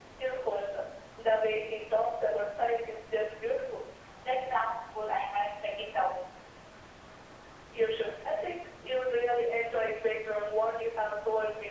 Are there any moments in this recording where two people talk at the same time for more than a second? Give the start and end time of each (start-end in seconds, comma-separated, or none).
none